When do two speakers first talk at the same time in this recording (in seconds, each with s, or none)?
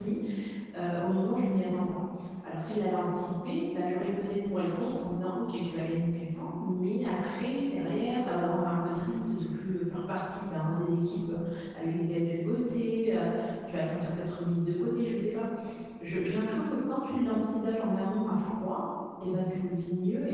none